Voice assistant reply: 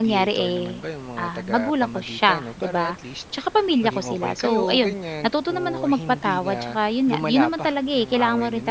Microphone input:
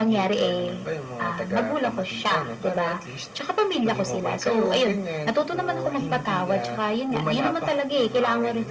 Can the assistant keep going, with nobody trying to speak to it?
Yes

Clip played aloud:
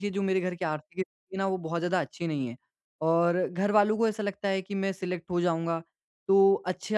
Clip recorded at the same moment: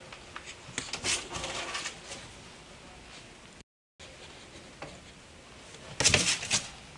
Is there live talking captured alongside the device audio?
No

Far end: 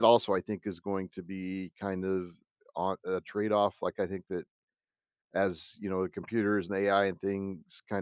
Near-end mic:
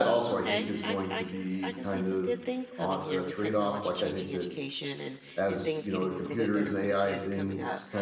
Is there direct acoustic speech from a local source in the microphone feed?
Yes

